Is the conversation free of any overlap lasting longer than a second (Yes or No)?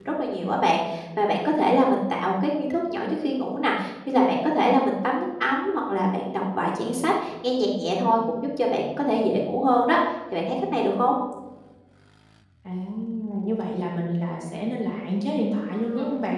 Yes